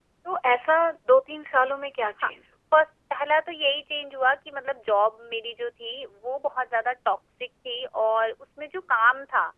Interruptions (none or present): none